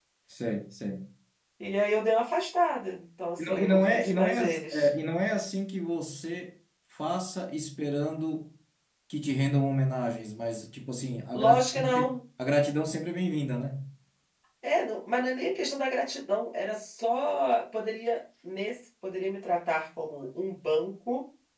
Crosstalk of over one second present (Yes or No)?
Yes